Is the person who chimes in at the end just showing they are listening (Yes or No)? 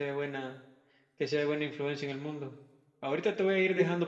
Yes